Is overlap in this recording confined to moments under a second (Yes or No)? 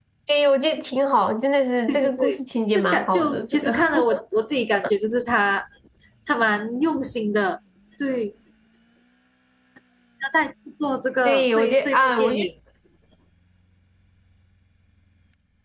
No